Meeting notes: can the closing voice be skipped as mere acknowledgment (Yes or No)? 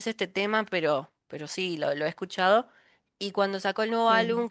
Yes